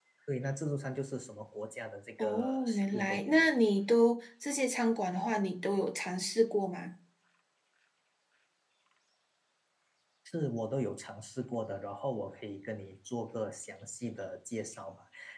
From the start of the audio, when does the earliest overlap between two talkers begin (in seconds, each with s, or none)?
2.2 s